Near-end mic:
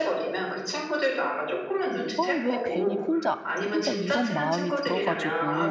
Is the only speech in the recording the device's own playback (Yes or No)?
No